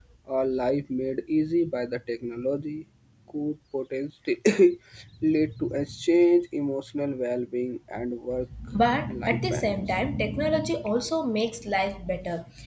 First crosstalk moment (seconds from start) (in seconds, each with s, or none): 8.7 s